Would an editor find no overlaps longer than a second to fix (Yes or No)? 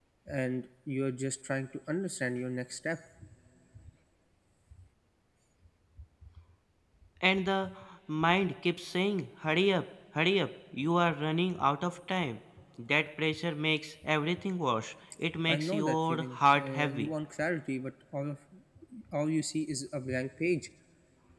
No